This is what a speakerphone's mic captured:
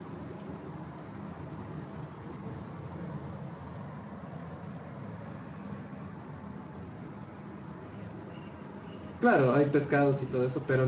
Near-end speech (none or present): present